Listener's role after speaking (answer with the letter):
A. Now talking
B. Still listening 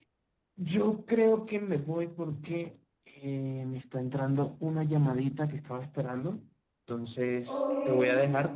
B